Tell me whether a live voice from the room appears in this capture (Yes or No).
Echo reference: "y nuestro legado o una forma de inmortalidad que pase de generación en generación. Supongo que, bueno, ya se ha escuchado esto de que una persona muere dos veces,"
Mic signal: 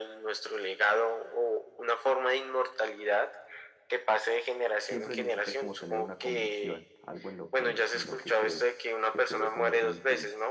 Yes